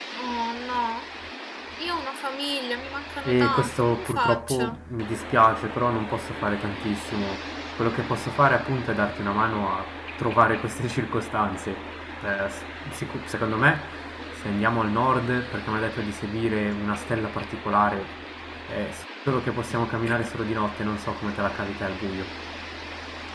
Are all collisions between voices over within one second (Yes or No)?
No